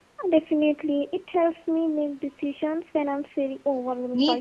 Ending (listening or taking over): taking over